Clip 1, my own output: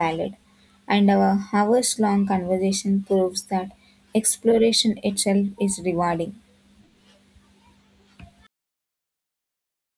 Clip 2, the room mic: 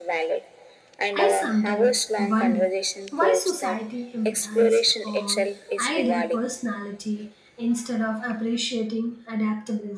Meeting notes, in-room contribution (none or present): present